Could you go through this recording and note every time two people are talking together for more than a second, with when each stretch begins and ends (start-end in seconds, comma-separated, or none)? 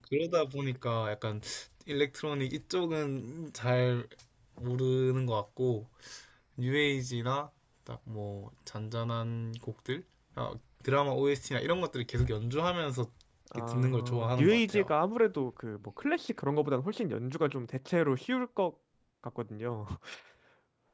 13.6-14.9